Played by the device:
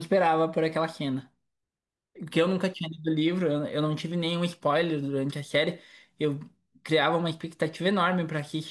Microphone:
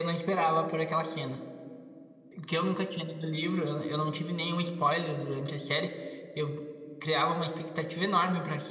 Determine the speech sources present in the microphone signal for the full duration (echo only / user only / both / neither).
echo only